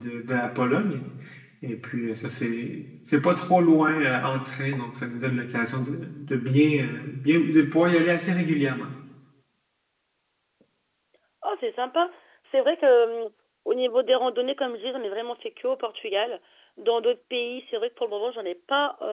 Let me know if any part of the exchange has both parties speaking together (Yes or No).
No